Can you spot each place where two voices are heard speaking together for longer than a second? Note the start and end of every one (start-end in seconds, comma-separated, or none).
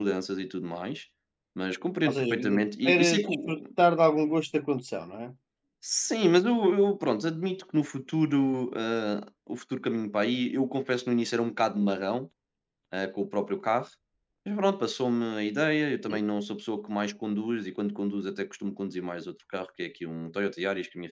2.1-3.6